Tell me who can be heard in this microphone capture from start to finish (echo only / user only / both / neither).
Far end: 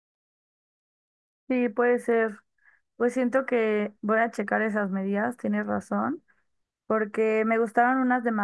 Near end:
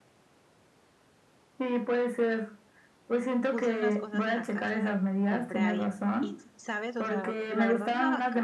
both